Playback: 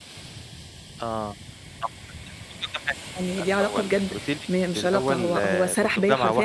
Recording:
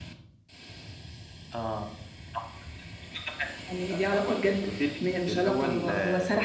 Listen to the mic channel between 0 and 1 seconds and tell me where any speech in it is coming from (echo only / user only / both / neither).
neither